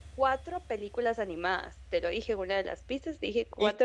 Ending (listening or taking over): taking over